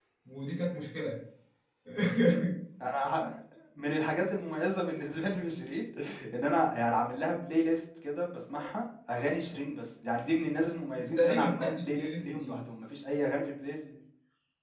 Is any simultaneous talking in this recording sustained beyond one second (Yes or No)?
Yes